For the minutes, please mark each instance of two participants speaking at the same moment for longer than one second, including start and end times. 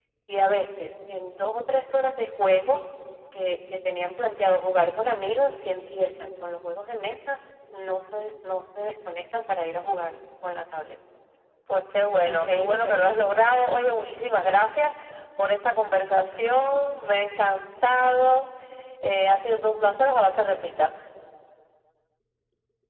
12.1-13.4

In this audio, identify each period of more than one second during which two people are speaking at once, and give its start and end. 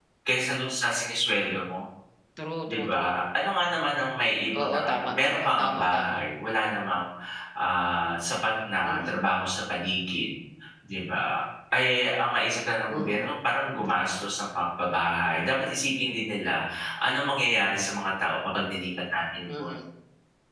4.6-6.1

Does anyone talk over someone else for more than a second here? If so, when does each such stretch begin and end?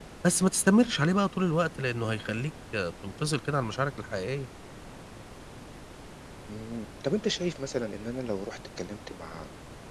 none

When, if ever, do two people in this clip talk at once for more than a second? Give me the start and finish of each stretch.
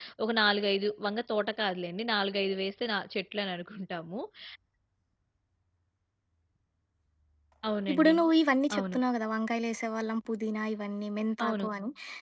none

